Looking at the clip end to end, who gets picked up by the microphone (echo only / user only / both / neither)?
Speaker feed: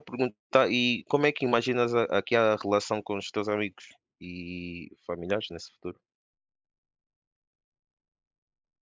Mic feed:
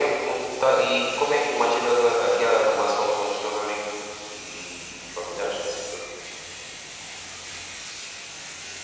echo only